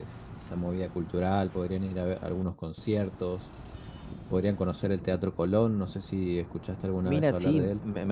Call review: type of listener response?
taking over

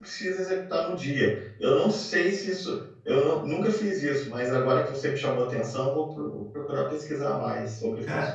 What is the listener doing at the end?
taking over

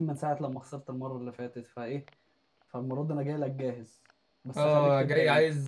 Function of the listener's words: taking over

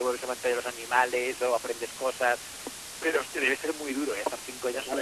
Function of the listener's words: taking over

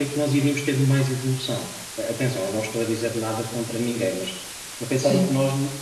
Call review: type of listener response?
listening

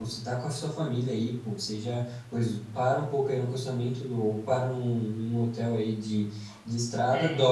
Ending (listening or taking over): listening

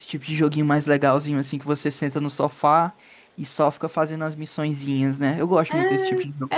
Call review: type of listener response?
taking over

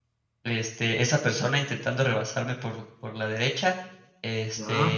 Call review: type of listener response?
listening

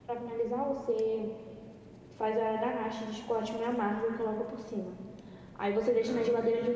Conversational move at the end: listening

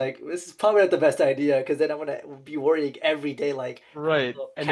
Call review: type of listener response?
taking over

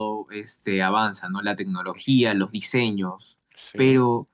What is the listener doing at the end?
listening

